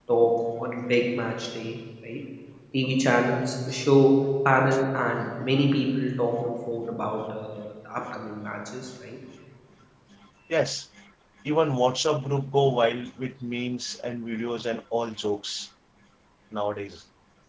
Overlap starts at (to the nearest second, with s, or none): none